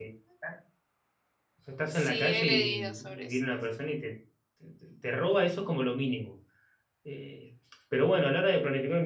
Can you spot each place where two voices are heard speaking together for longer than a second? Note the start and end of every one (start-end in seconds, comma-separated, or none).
1.9-3.4